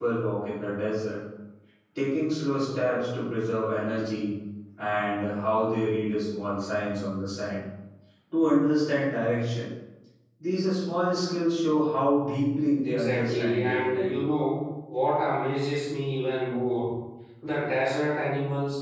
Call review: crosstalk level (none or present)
present